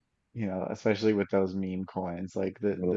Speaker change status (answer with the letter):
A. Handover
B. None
B